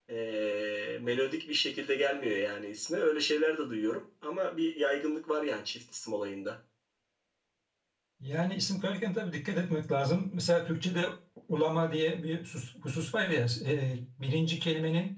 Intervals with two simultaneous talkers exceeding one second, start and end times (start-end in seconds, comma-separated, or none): none